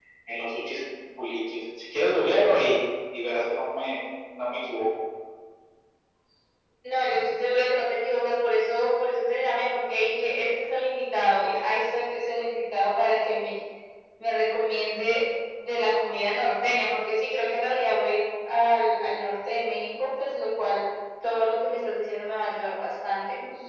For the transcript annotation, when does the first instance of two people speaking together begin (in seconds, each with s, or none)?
none